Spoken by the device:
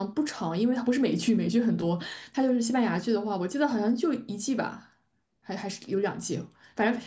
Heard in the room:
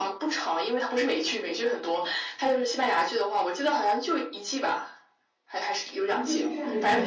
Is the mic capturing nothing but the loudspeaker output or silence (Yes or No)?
No